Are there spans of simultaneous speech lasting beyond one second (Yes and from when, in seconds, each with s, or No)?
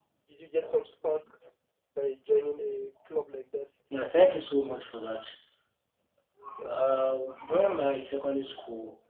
No